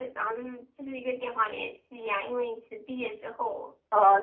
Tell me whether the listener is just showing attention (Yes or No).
No